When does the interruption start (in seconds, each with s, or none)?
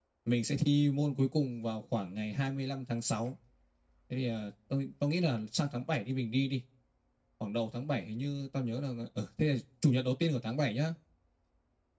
none